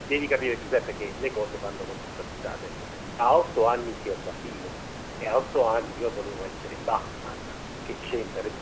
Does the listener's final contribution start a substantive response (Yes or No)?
No